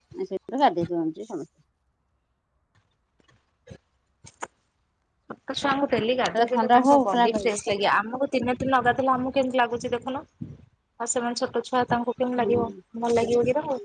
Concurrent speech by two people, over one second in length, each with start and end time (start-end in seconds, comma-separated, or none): 6.3-7.6